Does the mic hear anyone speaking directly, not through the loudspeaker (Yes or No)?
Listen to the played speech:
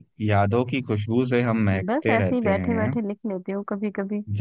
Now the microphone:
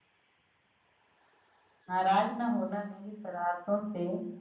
Yes